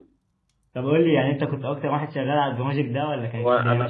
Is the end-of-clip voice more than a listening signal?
Yes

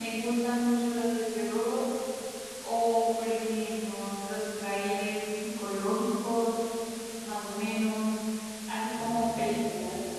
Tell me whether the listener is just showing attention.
Yes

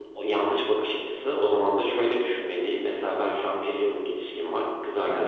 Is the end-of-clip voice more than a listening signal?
No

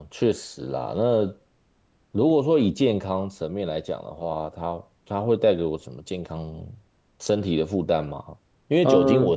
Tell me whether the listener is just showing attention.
Yes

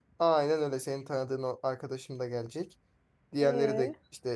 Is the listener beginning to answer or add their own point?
No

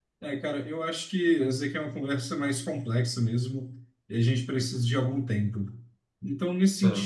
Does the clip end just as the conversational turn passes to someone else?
No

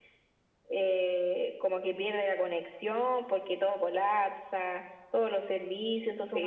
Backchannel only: No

